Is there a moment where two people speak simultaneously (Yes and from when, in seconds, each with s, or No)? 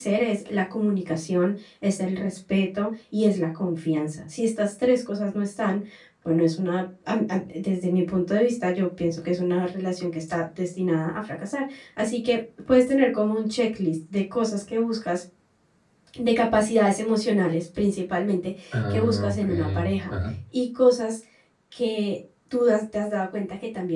Yes, from 18.7 s